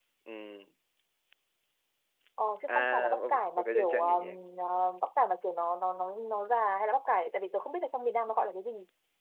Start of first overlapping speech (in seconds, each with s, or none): 2.7 s